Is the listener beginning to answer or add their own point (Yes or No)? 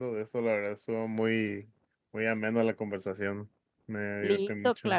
Yes